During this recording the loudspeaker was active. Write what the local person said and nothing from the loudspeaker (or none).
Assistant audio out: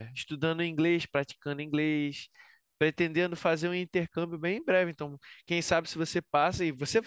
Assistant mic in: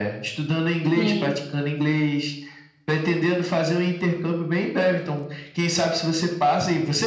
Sim.